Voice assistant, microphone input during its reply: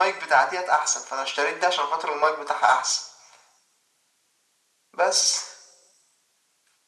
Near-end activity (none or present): none